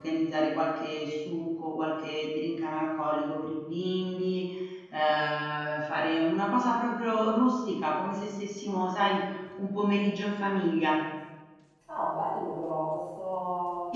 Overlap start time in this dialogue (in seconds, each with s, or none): none